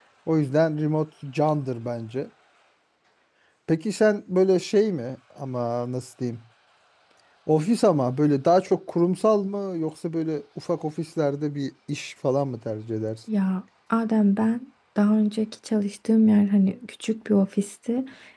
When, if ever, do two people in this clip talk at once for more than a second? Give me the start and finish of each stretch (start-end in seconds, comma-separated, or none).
none